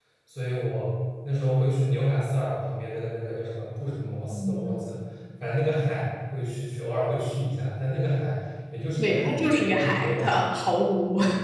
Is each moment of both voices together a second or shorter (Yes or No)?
No